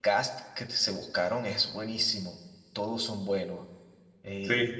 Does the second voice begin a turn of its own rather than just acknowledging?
No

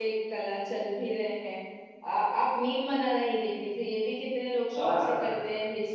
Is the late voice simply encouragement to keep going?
Yes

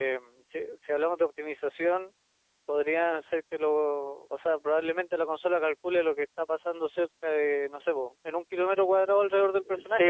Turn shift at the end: Yes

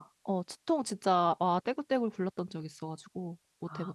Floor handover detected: Yes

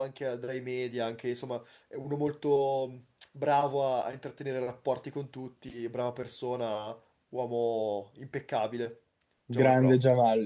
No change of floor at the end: No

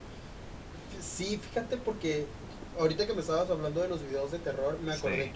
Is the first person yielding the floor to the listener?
No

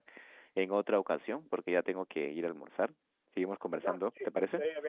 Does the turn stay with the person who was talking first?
No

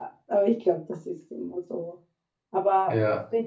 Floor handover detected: No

